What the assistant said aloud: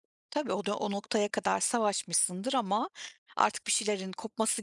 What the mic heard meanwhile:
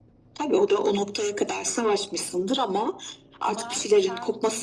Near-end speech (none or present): present